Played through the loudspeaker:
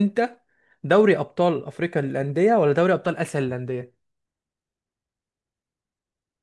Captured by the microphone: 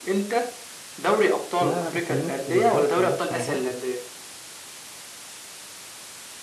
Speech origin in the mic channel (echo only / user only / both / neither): both